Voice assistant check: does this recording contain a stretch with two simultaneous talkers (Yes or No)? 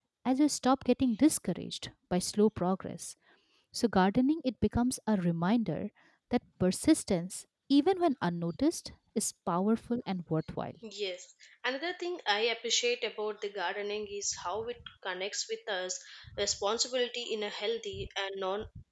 No